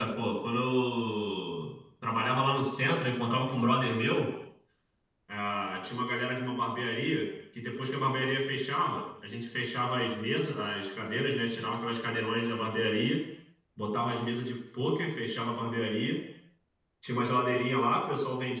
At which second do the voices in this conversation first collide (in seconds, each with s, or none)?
none